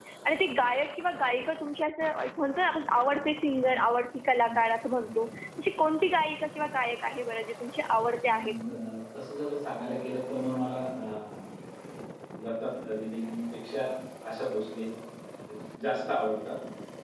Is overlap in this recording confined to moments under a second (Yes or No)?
Yes